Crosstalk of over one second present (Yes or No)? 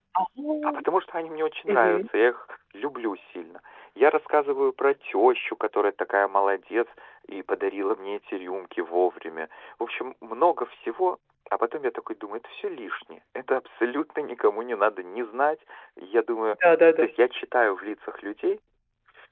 No